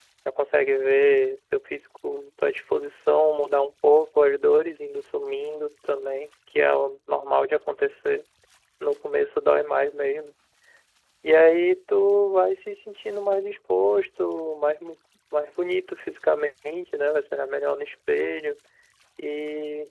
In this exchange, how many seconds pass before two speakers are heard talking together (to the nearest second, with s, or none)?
none